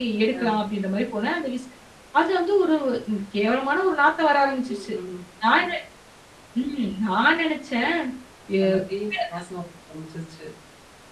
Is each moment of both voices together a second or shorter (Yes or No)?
Yes